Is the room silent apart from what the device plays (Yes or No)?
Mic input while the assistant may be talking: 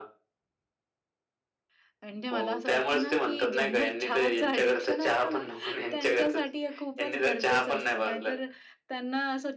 No